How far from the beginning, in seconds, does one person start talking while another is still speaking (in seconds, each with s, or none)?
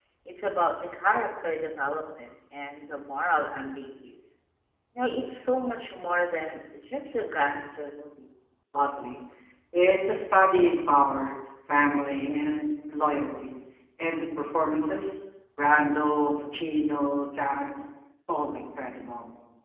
none